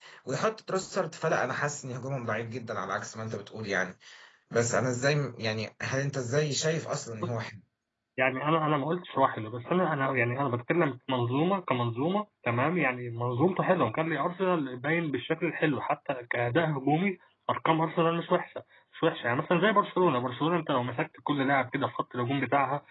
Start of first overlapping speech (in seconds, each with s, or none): none